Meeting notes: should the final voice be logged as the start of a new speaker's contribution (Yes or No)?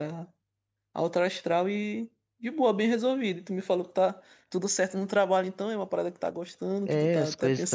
Yes